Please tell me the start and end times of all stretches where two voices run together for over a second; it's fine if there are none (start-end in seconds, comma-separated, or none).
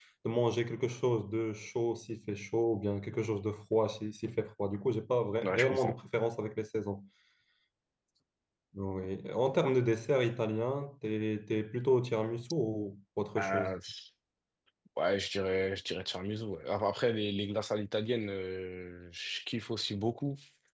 none